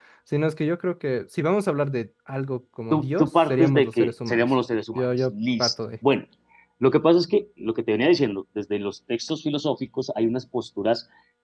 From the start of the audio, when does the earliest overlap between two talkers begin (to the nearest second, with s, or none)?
3 s